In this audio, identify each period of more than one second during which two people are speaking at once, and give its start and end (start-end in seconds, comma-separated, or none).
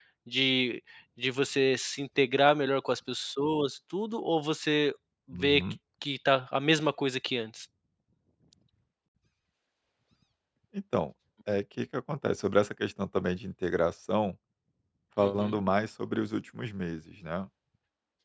none